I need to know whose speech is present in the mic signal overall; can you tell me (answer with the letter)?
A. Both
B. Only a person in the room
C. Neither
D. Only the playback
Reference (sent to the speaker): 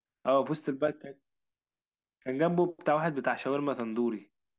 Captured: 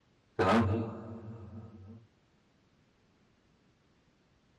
B